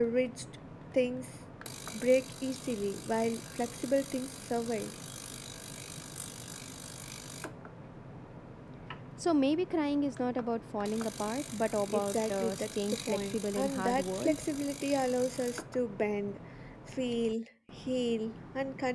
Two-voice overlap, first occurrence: 11.9 s

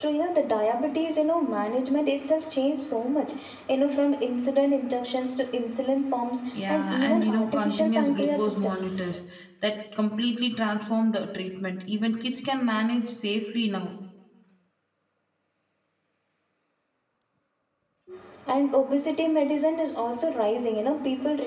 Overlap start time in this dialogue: 6.5 s

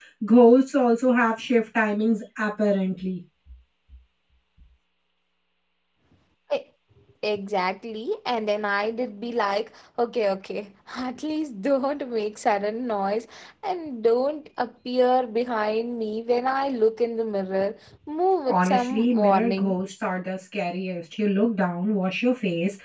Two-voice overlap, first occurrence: 18.4 s

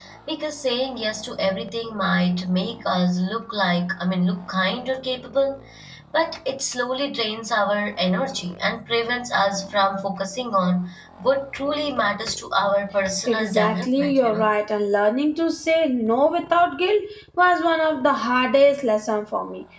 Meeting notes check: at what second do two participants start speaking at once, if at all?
13.3 s

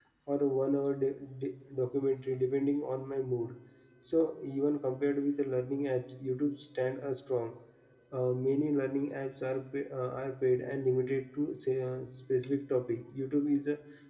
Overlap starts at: none

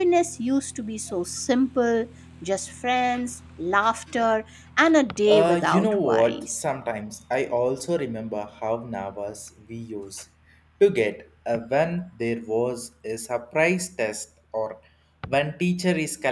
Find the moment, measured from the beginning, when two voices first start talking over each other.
5.1 s

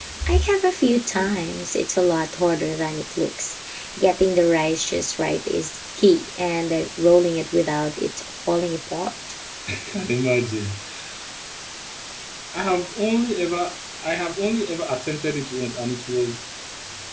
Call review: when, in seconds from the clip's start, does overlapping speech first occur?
none

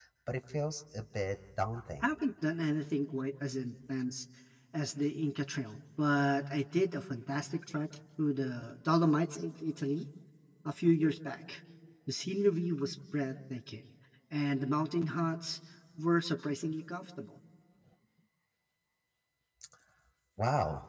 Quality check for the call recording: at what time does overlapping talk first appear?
none

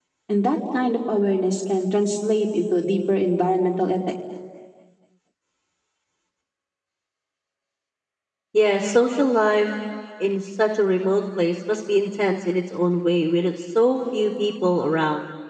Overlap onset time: none

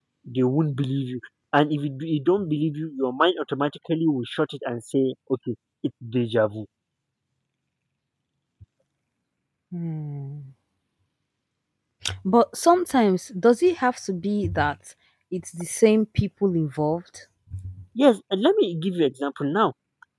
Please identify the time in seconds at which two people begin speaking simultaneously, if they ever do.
none

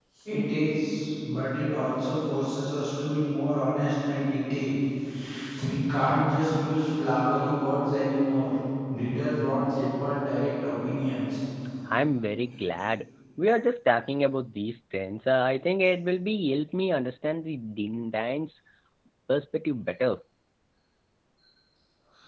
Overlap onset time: none

